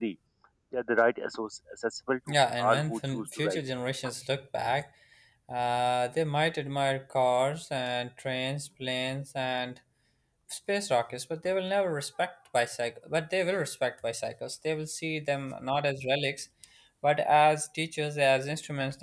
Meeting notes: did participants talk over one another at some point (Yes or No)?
Yes